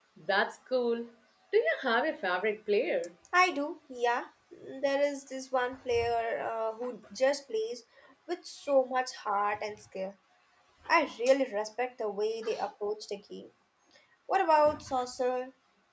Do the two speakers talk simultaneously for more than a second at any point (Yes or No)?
No